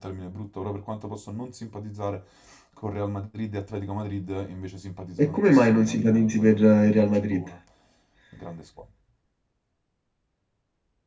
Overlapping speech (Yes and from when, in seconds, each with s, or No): Yes, from 5.2 s